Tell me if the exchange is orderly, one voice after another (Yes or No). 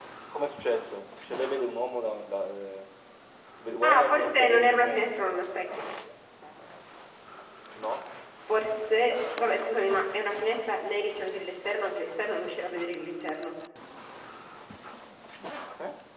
No